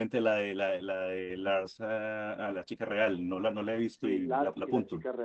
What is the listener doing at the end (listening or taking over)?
taking over